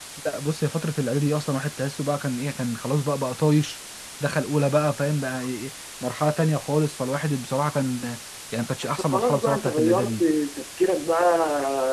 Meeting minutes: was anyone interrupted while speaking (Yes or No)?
Yes